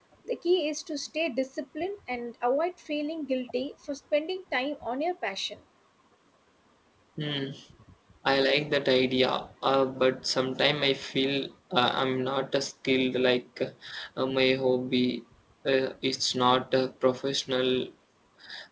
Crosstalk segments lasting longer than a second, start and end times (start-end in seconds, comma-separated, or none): none